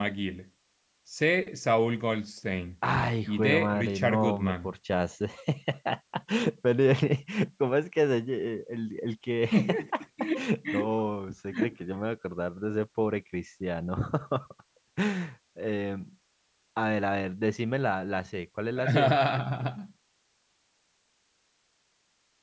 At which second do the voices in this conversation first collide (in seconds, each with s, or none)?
3.2 s